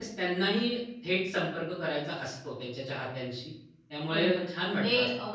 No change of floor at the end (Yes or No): No